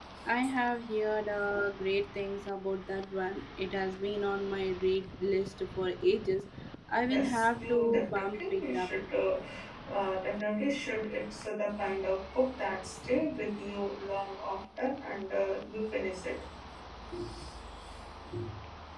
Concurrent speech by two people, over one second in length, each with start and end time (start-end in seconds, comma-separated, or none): 7.1-8.9